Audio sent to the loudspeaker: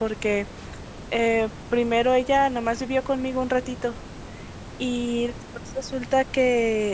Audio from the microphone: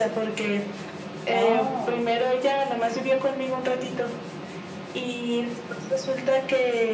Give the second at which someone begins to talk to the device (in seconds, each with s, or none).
1.3 s